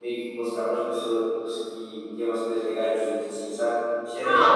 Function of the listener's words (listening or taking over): taking over